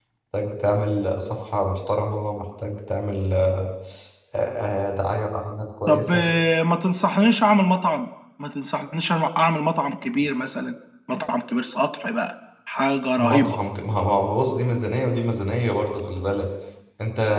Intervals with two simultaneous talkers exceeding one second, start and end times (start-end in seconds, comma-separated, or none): none